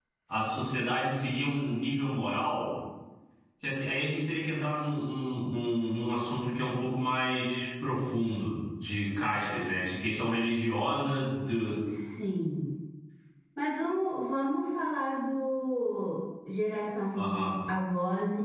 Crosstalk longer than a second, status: none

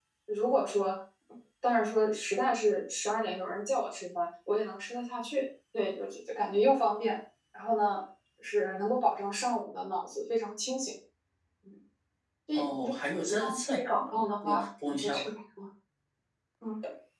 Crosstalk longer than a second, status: present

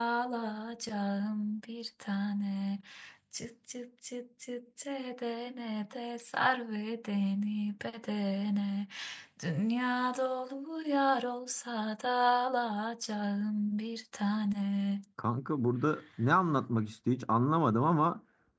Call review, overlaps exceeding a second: none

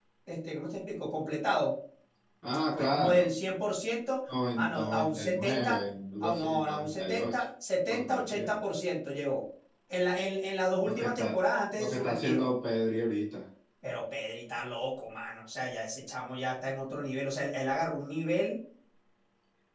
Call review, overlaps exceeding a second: present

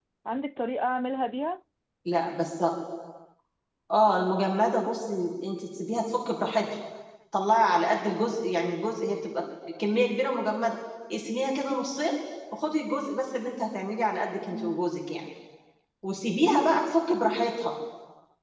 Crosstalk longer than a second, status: none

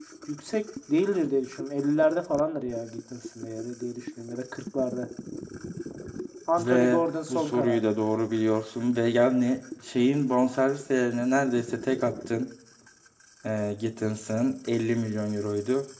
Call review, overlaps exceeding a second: present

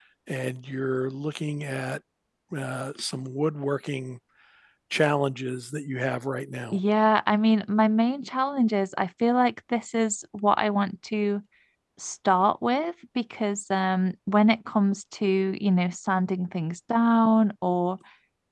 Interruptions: none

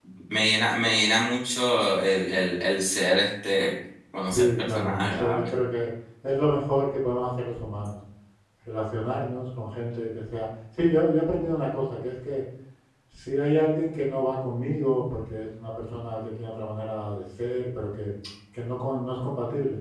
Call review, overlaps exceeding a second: present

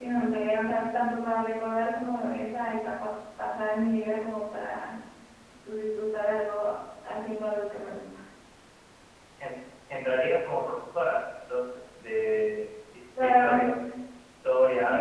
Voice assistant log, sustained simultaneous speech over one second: none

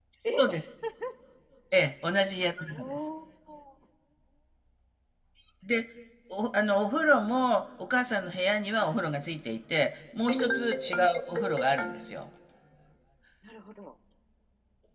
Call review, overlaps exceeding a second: none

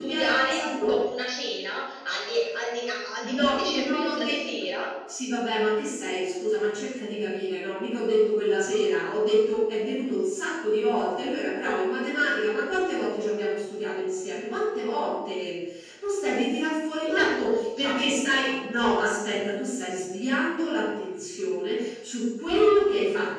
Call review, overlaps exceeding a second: present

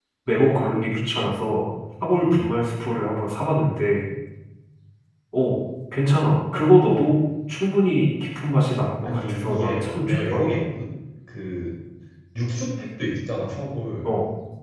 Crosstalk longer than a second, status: present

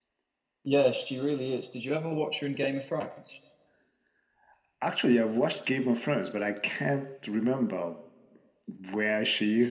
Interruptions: none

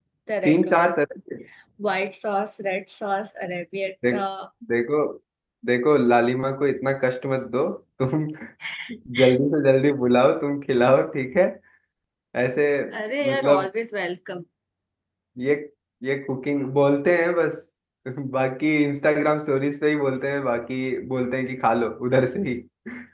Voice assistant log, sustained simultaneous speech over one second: none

